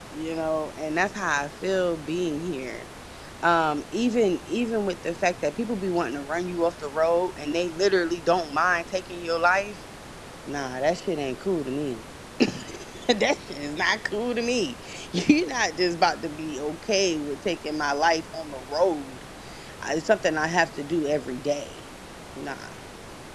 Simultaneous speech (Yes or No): No